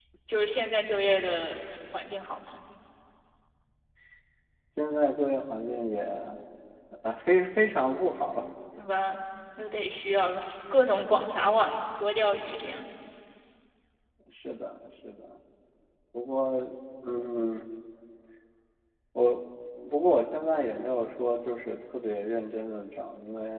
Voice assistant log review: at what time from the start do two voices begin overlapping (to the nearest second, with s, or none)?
none